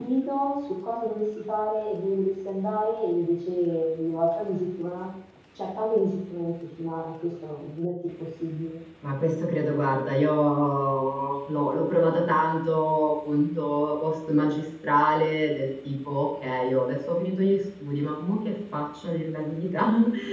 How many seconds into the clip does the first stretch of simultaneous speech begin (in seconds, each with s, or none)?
none